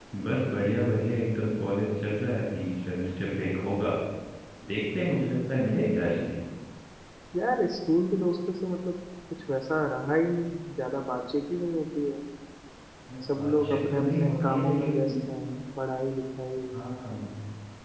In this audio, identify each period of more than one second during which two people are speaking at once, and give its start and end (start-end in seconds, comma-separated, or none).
13.3-15.0